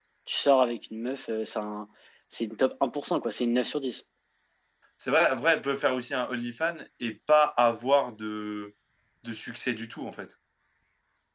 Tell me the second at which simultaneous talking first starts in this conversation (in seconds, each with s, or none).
none